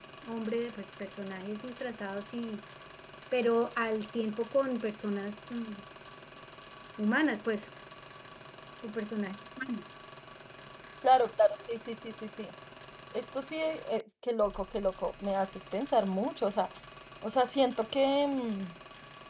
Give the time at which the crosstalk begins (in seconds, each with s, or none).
none